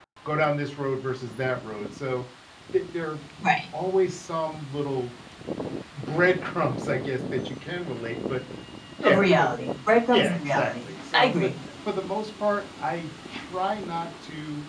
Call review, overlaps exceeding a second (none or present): present